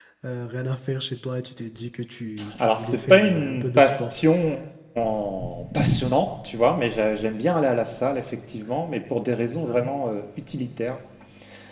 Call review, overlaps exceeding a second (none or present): present